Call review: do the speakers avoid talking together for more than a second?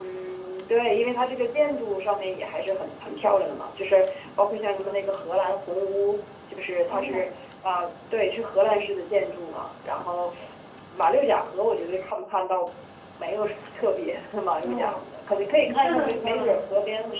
No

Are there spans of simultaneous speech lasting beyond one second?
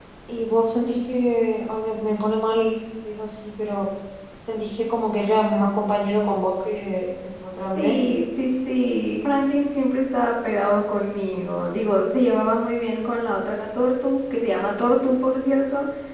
No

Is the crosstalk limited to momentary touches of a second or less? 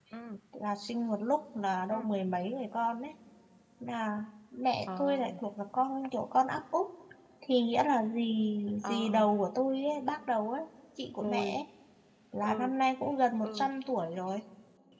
Yes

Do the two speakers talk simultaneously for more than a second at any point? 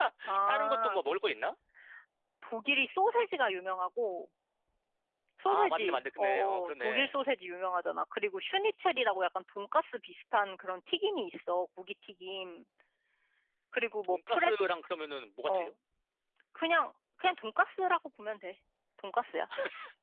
Yes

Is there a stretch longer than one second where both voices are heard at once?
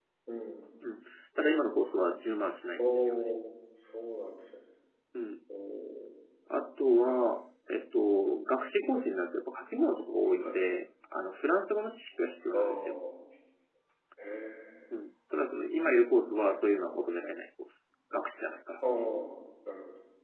No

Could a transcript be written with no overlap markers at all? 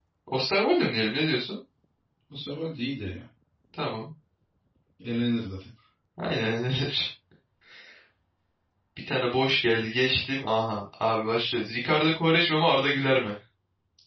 Yes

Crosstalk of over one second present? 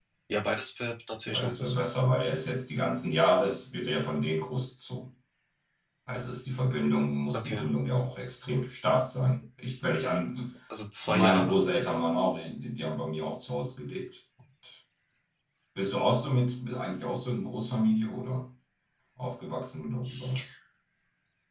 No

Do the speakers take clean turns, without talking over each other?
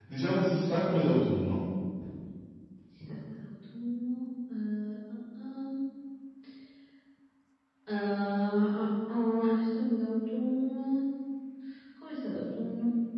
Yes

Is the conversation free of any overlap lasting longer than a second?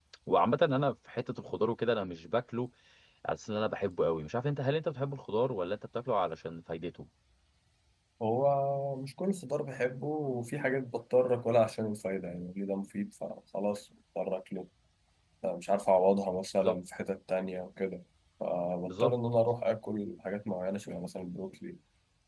Yes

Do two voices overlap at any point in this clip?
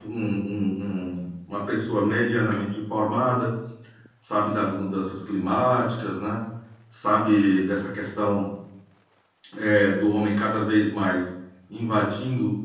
No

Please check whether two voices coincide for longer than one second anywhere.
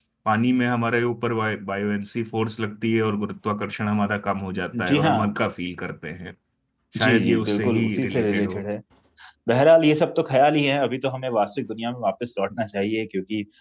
Yes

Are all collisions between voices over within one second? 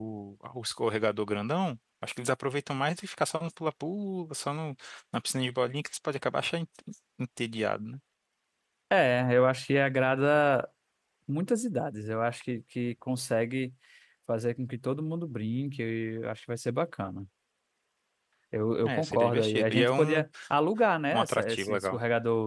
No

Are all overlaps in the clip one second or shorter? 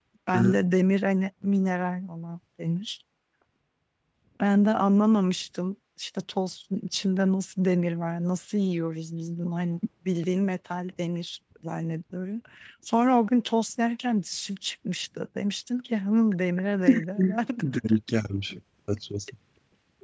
Yes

